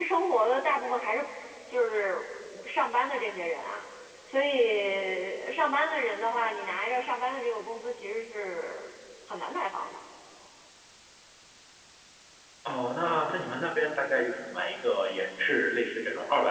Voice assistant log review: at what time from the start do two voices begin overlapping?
none

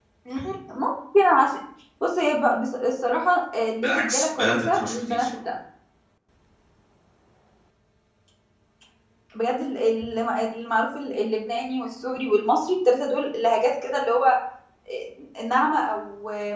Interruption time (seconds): 3.8 s

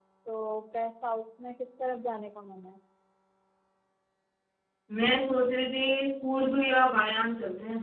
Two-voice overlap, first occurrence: none

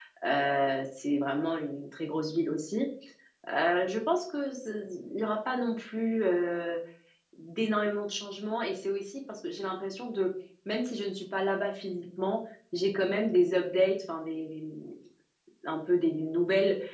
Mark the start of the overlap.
none

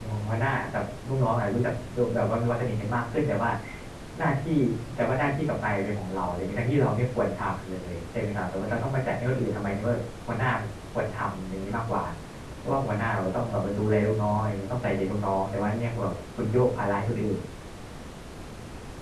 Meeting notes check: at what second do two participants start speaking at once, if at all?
none

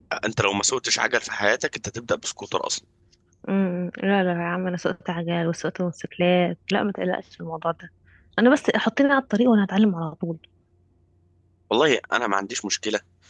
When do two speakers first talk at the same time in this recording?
none

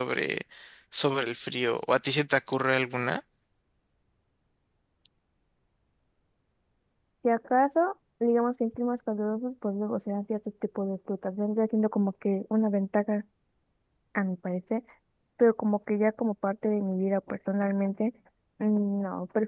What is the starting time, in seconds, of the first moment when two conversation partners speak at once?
none

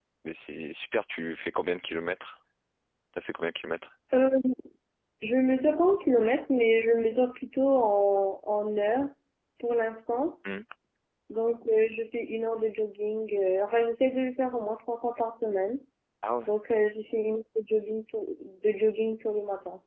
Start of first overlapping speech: none

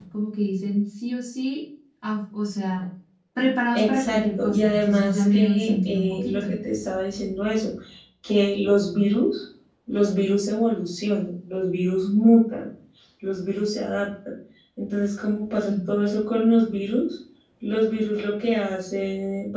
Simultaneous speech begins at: 3.7 s

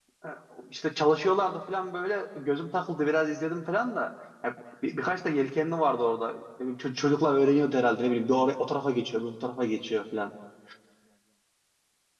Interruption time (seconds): none

